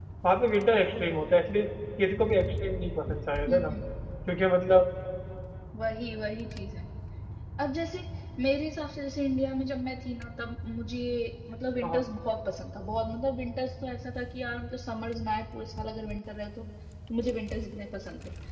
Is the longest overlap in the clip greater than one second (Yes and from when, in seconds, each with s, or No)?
No